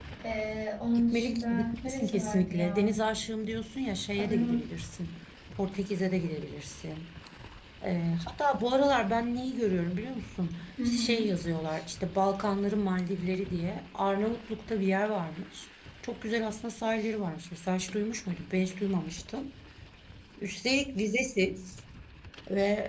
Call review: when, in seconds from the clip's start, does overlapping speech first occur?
1 s

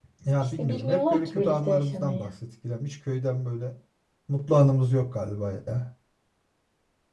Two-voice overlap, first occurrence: 1 s

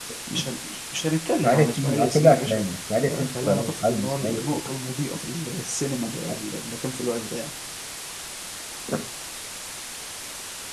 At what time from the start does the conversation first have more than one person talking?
1 s

